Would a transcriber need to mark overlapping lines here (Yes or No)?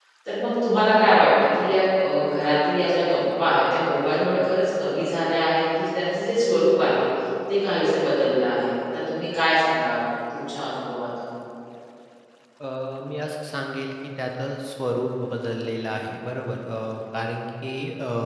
No